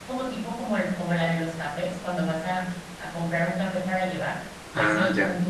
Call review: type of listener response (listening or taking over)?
listening